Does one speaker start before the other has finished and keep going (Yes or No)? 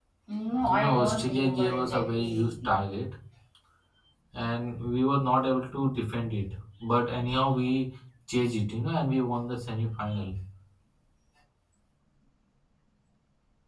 Yes